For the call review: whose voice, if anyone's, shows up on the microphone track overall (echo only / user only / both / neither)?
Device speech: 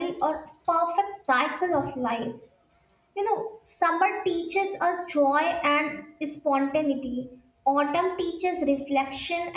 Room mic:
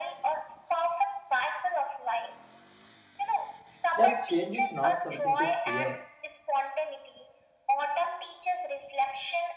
both